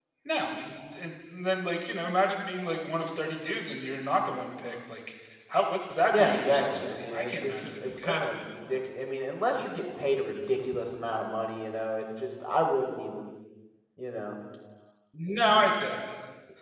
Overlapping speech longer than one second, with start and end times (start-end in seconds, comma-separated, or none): 6.1-8.2